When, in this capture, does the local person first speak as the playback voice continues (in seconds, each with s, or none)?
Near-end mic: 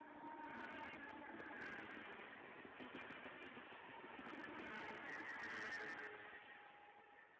none